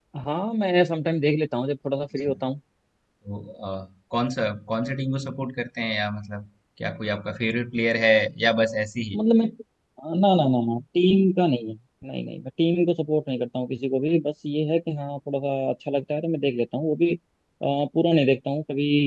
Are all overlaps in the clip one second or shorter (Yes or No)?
Yes